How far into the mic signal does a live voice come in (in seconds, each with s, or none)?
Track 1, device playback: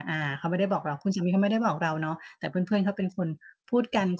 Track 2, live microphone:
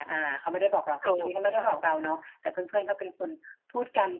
1.0 s